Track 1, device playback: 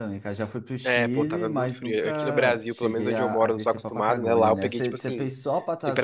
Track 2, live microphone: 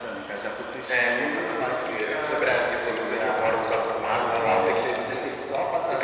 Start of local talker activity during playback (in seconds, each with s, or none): none